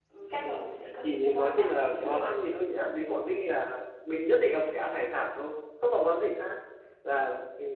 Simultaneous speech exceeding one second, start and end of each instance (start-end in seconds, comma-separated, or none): 1.0-2.3